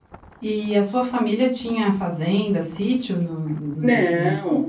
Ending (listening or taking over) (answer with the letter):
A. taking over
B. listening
A